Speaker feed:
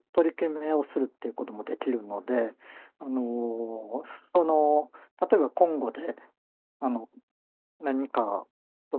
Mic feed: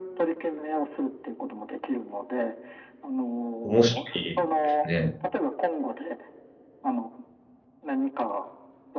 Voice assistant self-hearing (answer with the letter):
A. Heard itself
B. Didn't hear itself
A